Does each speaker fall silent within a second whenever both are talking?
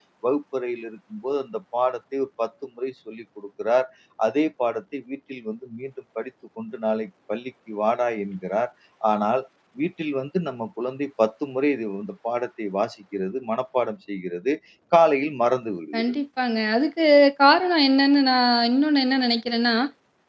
Yes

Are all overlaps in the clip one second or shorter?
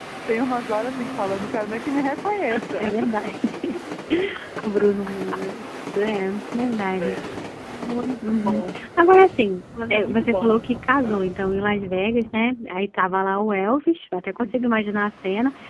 No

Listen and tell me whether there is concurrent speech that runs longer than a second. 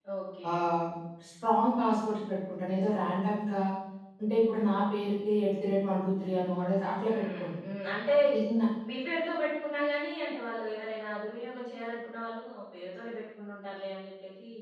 No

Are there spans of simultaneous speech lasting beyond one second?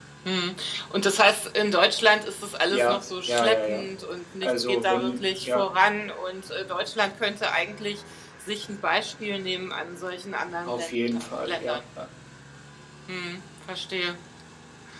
Yes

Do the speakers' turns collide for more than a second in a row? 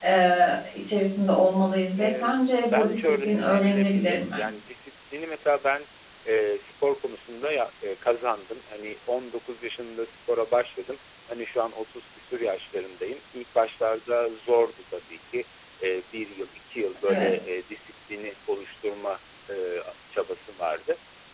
Yes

